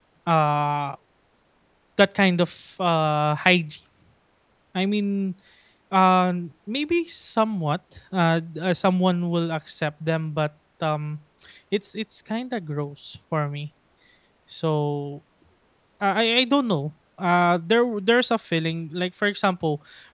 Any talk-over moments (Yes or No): No